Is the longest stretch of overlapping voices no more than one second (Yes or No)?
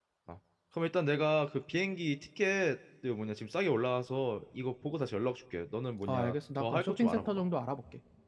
No